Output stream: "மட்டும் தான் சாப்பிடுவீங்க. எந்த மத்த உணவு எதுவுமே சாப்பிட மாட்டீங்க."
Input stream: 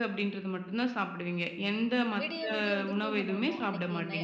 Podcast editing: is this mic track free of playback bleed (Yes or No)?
No